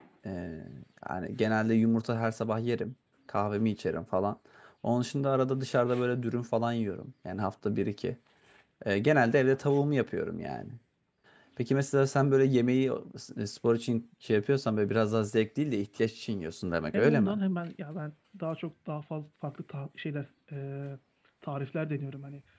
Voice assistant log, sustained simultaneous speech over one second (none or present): none